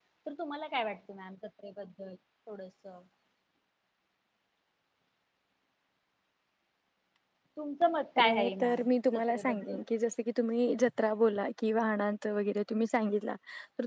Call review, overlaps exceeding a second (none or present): present